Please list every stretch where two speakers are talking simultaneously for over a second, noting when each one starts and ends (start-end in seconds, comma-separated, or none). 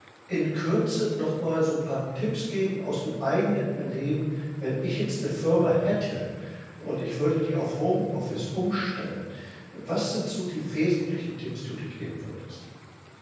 none